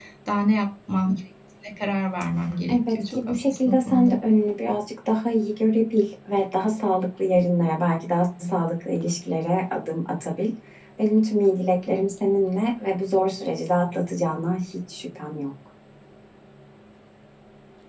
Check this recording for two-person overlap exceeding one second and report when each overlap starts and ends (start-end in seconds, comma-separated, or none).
2.7-4.2